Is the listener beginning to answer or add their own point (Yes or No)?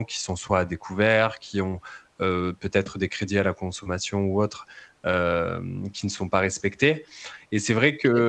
No